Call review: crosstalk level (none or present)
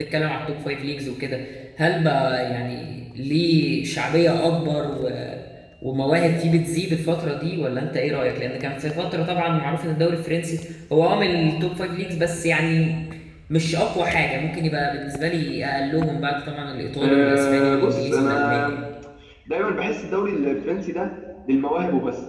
present